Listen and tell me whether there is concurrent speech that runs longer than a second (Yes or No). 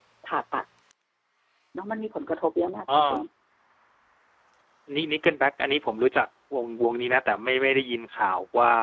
No